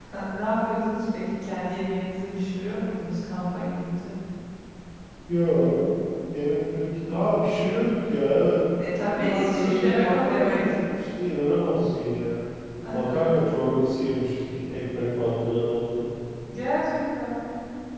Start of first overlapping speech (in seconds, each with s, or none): 9.2 s